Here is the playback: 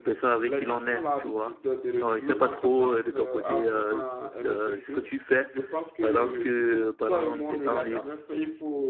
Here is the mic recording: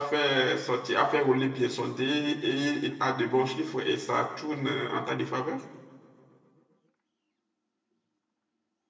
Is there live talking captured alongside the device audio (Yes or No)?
Yes